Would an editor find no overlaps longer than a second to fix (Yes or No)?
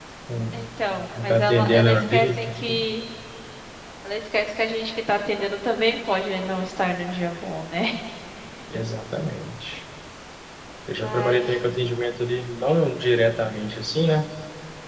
No